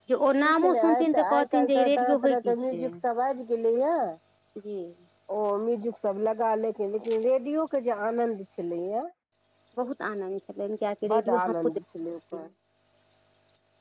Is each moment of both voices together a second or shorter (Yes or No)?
No